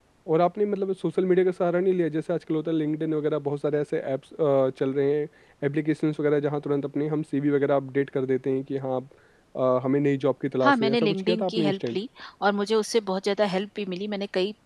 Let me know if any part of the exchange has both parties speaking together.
Yes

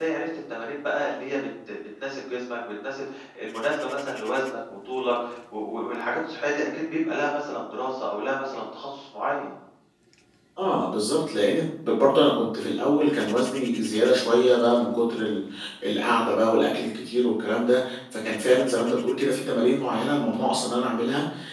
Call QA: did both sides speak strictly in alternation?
Yes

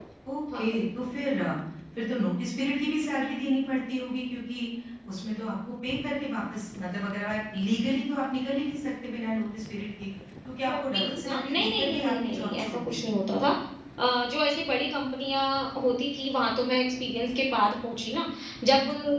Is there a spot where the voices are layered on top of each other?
Yes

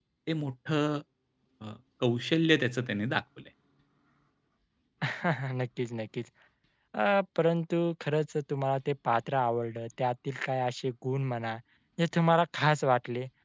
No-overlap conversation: Yes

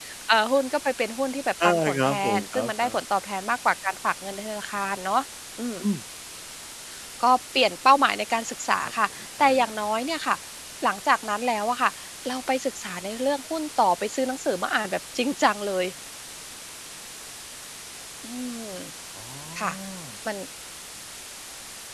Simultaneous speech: Yes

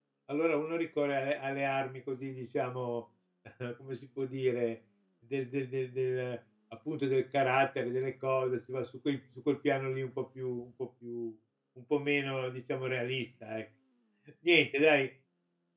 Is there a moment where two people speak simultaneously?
No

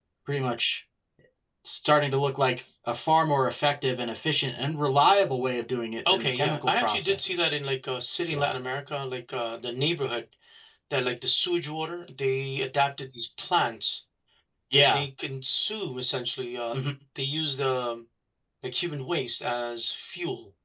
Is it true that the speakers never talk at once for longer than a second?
No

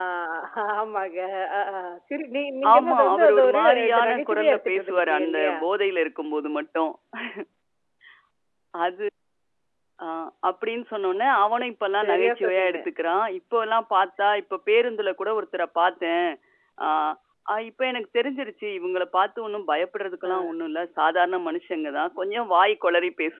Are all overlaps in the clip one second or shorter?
No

